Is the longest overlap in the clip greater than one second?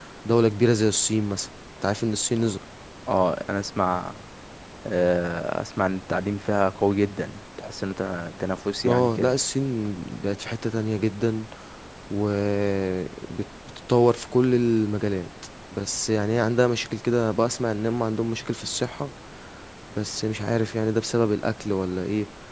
No

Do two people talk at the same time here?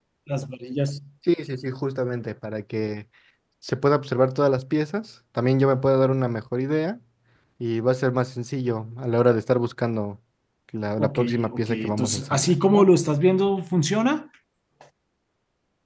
Yes, from 11.0 s

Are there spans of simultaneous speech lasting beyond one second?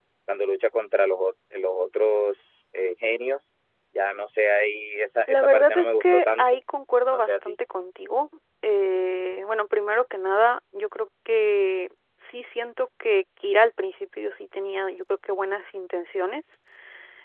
Yes, from 5.3 s

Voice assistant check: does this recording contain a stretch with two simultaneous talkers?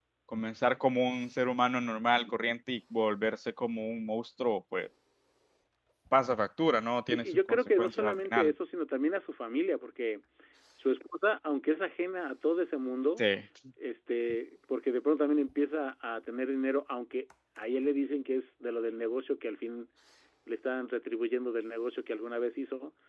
Yes, from 7.1 s

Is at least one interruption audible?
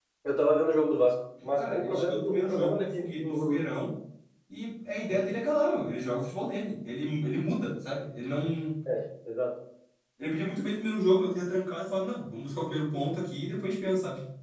Yes, from 1.4 s

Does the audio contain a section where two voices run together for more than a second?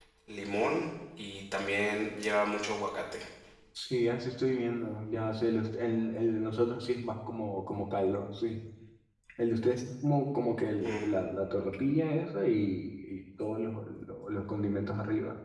No

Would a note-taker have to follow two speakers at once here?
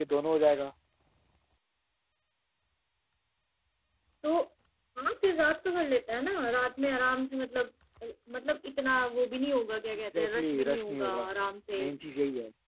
Yes, from 9.9 s

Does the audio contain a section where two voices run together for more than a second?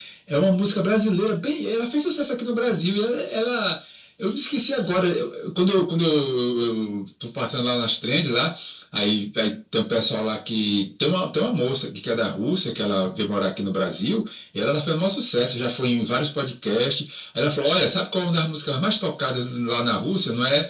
No

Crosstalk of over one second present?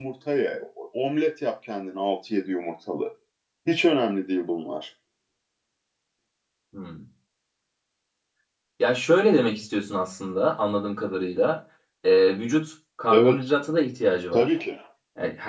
No

